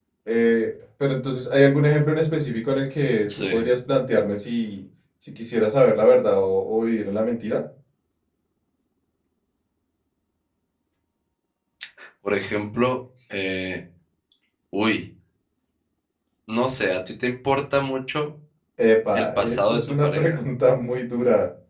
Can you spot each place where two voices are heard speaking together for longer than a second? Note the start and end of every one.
19.1-20.4

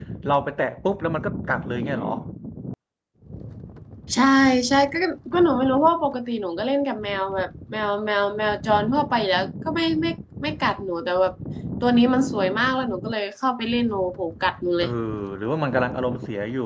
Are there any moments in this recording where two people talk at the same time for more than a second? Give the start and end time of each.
none

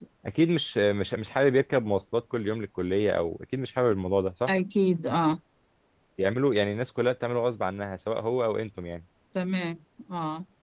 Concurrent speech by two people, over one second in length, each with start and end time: none

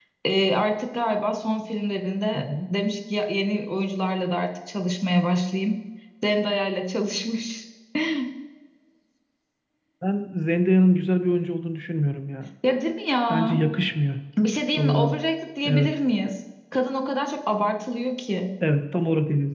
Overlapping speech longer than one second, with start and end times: none

